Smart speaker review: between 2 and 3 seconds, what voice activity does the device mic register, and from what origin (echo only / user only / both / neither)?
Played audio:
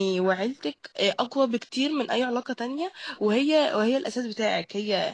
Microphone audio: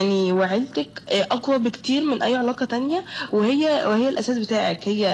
echo only